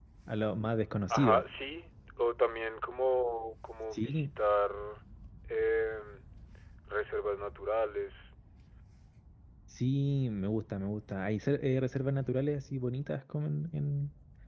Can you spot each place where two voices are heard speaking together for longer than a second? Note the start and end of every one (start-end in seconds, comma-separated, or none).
none